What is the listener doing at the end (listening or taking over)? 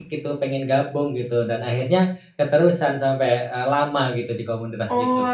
taking over